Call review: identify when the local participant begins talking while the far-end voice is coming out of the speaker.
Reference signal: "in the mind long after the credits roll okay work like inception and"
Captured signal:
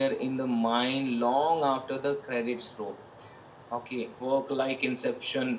none

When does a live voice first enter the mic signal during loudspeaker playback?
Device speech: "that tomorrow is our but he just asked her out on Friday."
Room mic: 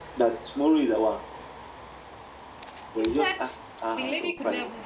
2.9 s

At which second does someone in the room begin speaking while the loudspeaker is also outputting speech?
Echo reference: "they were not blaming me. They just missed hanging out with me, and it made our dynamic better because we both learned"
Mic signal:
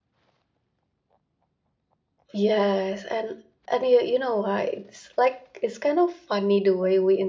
2.3 s

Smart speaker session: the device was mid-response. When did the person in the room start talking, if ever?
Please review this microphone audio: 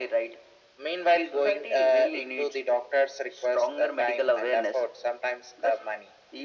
none

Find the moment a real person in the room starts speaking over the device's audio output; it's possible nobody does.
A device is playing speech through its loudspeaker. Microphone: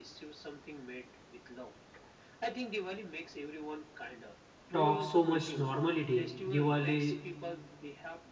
4.7 s

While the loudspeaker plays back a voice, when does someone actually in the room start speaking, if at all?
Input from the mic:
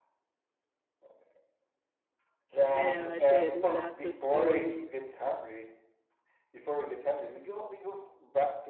2.6 s

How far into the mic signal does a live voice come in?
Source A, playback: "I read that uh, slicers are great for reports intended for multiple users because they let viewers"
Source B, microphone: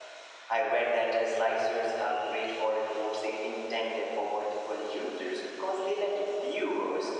none

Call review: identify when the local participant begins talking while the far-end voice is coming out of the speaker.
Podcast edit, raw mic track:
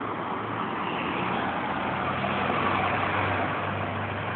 none

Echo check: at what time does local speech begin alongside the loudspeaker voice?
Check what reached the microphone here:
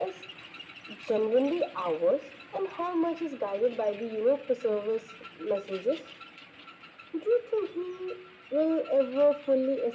none

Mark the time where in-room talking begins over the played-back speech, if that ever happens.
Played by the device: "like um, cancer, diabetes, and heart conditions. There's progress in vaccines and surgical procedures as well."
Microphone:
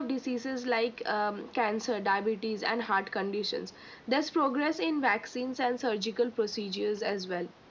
none

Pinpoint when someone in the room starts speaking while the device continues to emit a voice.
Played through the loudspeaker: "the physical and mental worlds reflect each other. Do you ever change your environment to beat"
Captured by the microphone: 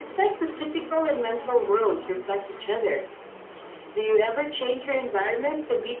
none

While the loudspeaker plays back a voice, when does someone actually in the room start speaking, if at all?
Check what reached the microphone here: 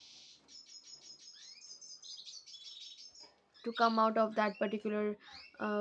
3.6 s

